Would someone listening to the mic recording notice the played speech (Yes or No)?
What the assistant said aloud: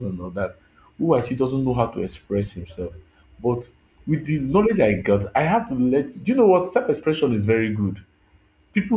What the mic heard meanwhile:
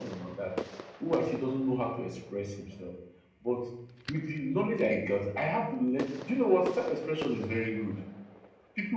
Yes